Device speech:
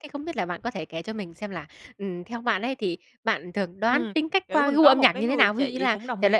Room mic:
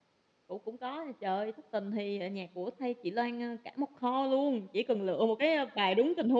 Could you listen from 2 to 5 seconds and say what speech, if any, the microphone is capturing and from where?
user only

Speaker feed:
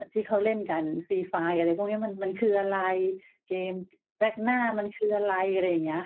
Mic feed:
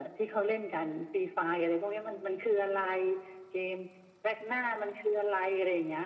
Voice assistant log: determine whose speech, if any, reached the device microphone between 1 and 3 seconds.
echo only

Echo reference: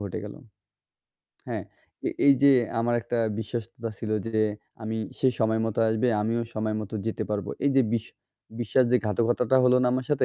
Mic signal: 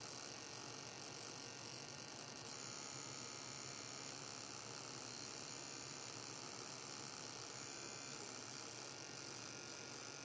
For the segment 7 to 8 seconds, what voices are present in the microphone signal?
neither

